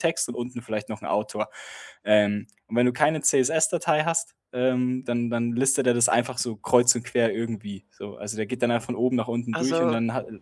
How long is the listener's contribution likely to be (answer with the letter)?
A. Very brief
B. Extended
A